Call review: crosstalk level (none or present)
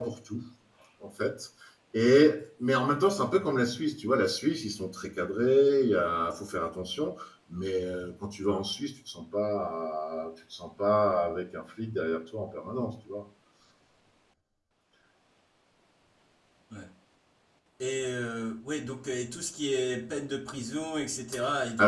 none